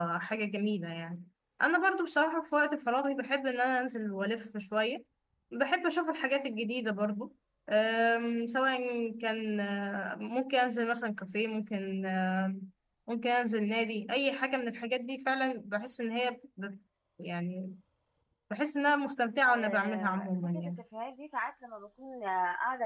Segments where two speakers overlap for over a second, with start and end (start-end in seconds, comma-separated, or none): 19.5-20.7